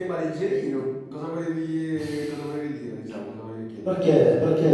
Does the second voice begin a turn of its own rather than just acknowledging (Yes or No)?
Yes